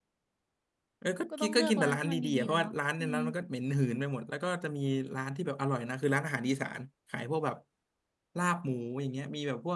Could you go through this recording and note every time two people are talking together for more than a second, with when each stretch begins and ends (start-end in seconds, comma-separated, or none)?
1.4-3.2